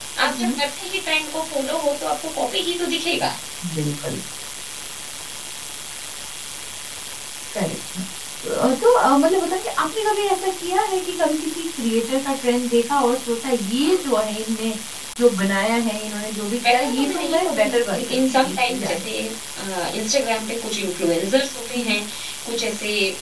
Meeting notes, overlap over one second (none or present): present